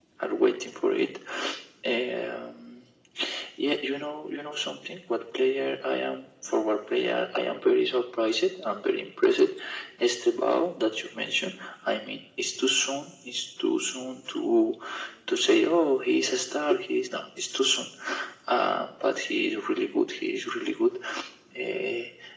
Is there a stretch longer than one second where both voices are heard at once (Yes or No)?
No